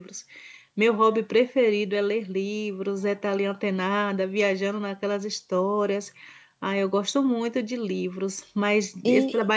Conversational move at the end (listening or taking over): listening